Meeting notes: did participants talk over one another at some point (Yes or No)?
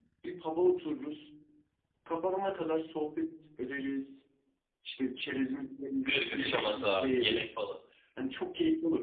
Yes